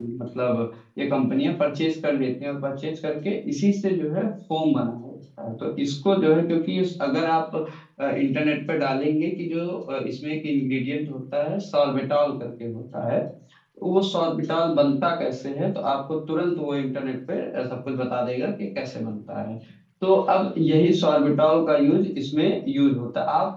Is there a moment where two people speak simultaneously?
No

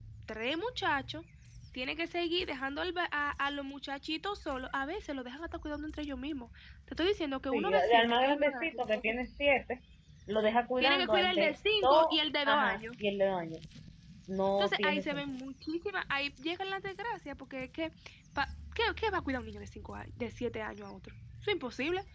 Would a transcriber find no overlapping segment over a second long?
No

